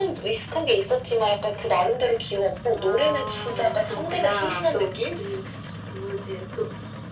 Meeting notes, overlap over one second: present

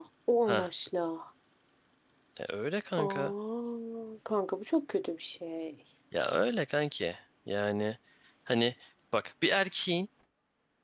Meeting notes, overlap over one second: none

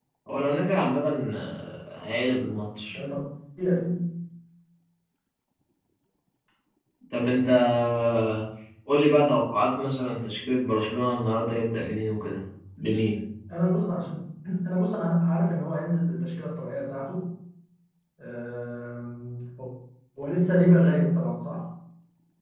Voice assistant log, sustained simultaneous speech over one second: none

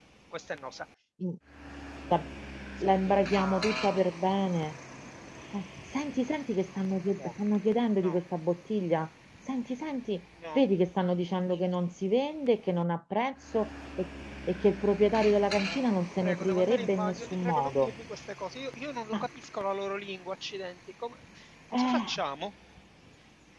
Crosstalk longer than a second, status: present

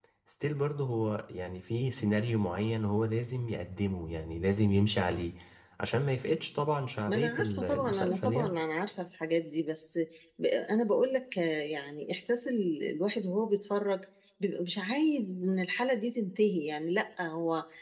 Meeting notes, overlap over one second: present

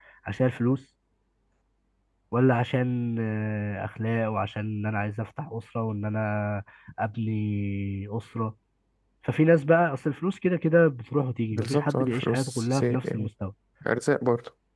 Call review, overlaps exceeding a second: present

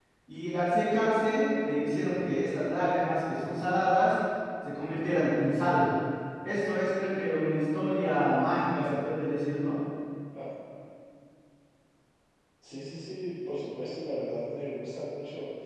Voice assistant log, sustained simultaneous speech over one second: none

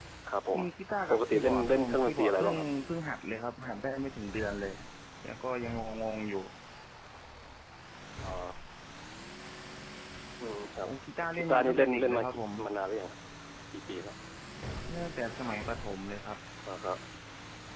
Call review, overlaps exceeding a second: present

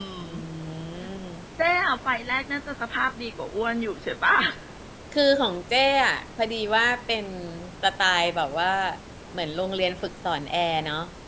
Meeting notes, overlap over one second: none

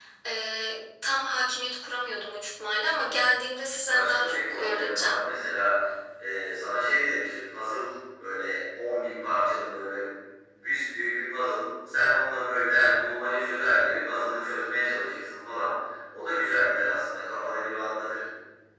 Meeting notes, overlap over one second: present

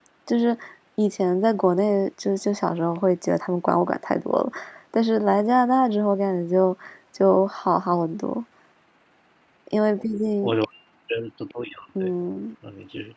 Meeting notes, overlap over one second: none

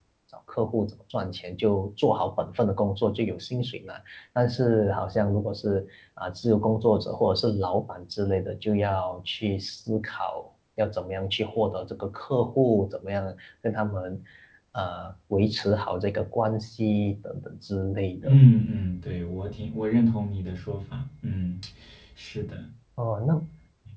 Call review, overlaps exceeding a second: none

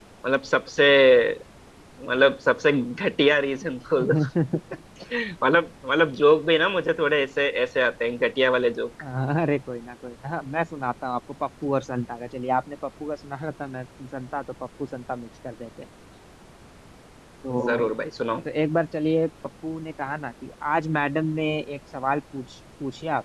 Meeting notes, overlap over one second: none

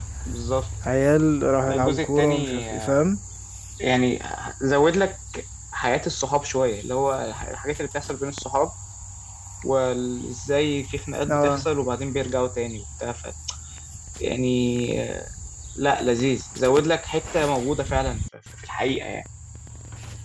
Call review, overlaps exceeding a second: present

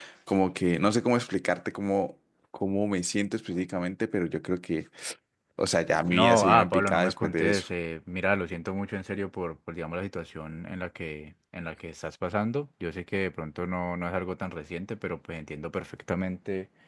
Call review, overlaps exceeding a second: present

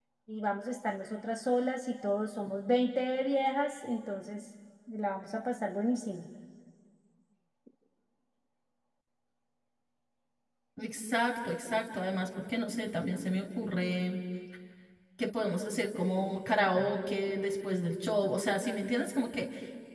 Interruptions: none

